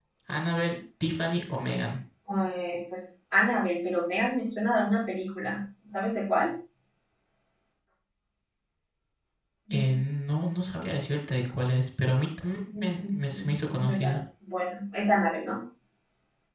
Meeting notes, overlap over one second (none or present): present